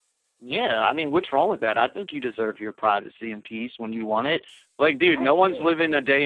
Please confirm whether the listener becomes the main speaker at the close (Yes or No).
No